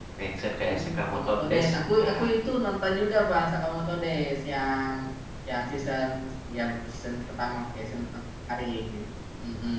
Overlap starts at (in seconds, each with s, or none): 0.6 s